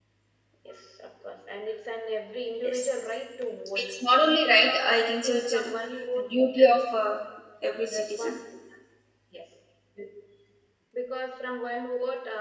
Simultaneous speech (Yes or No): Yes